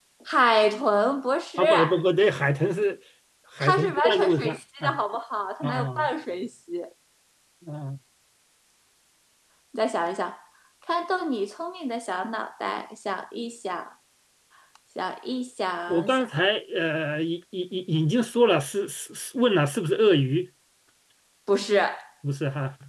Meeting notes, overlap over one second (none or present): present